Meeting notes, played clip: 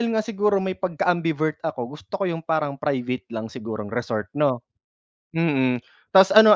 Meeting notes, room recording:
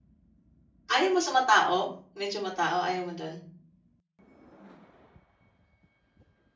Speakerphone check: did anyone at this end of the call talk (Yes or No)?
Yes